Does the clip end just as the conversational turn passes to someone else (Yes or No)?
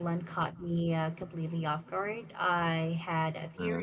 No